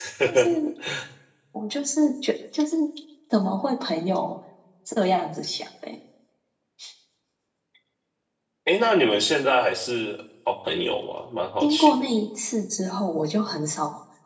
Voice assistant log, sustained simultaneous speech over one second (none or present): none